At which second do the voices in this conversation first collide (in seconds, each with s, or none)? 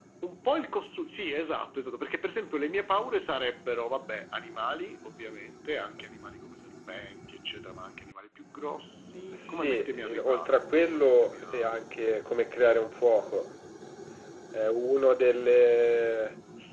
9.3 s